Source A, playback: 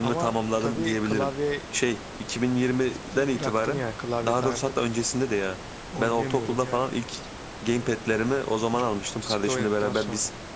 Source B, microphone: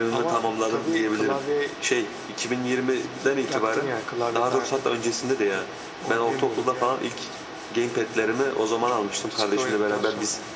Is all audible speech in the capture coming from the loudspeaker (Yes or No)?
Yes